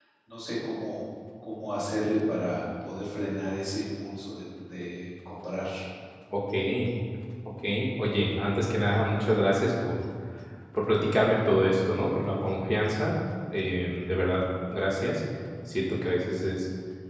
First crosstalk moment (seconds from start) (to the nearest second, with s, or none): none